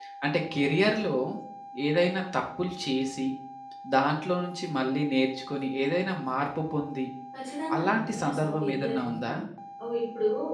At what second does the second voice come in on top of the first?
8 s

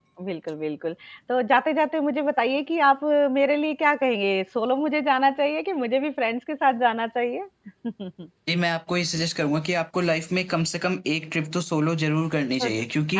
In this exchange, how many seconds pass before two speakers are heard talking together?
none

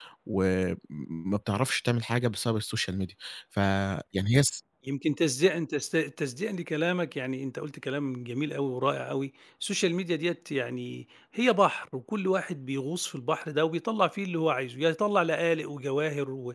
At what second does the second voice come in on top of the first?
none

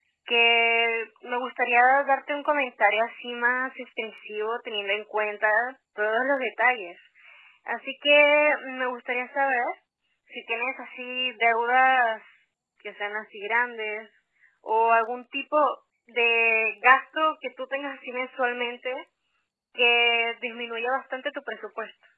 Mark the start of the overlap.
none

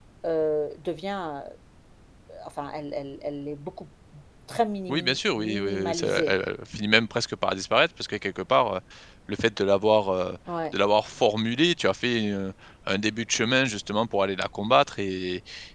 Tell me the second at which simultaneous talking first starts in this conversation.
5 s

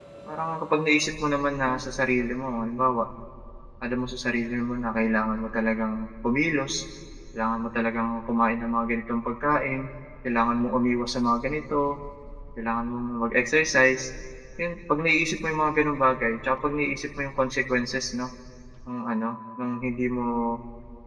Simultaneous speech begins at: none

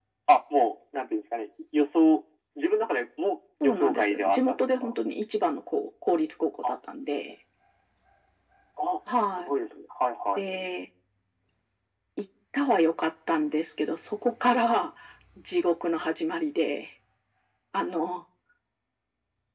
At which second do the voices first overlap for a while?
4 s

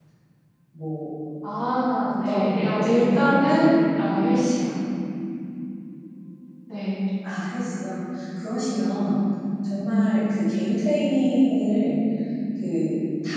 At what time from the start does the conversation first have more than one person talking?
2 s

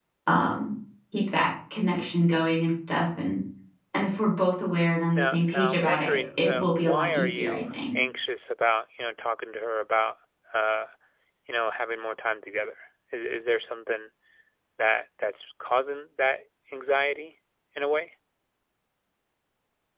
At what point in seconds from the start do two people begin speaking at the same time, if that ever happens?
5 s

